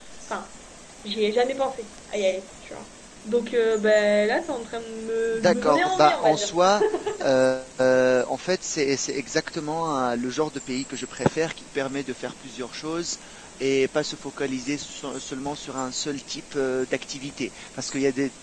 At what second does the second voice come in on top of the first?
5.3 s

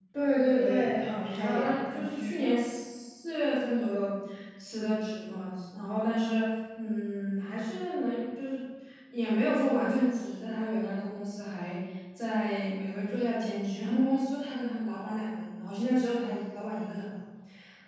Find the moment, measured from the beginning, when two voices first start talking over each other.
0.6 s

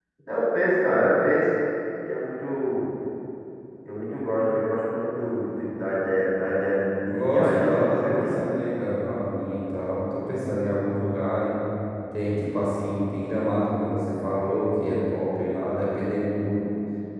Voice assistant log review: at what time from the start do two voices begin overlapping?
7.0 s

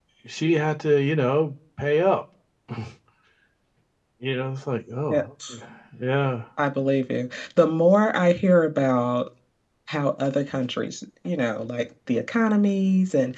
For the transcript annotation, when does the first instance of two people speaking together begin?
none

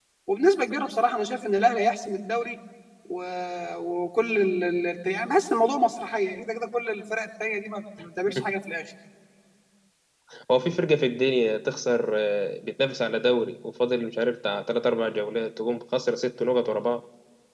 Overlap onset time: none

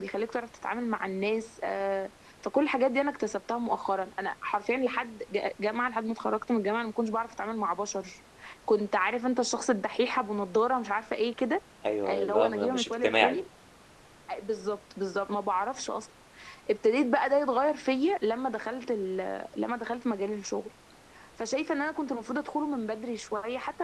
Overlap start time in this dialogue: 12.1 s

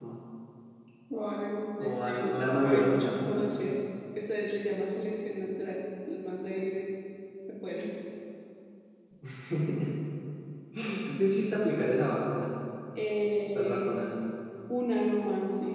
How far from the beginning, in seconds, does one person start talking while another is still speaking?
1.9 s

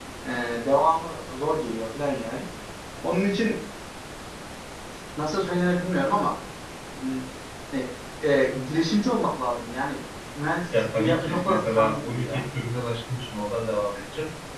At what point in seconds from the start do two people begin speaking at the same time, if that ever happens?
10.7 s

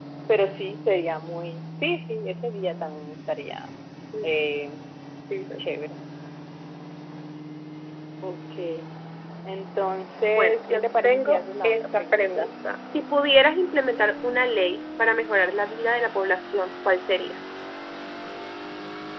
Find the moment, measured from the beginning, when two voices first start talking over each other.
10.3 s

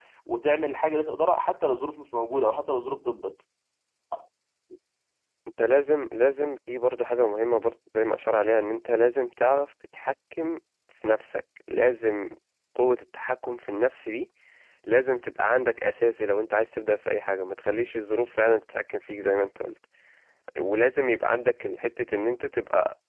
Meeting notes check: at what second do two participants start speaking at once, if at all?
none

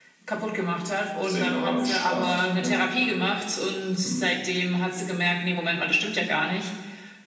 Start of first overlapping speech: 1.3 s

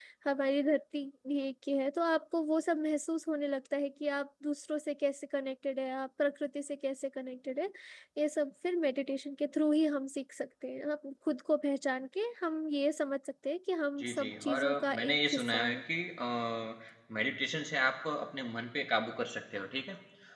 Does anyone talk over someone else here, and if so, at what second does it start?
14.0 s

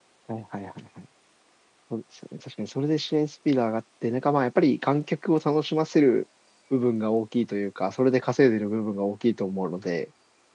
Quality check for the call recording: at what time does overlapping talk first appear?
none

